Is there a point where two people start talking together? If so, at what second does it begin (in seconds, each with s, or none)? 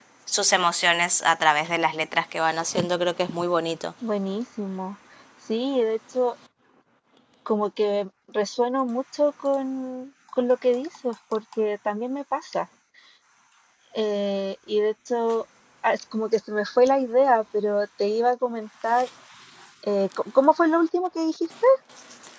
none